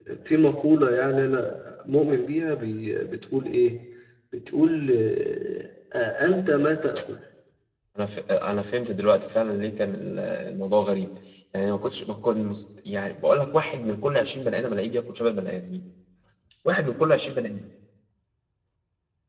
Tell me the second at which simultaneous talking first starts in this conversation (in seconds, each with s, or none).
none